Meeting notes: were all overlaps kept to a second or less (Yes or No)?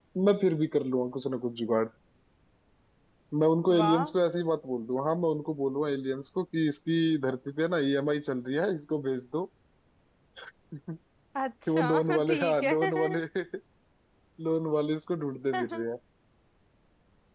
No